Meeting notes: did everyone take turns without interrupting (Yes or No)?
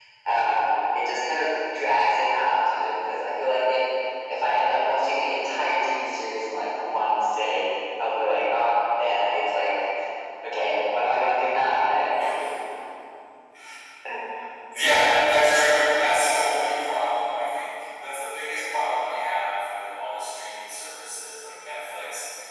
Yes